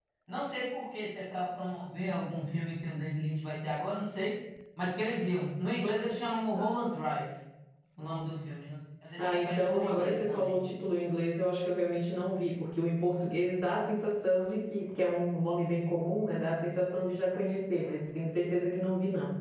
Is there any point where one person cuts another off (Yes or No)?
Yes